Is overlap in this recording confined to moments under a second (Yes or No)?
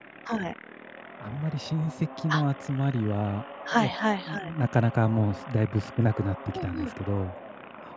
Yes